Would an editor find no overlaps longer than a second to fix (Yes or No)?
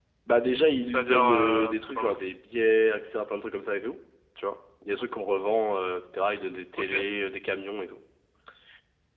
No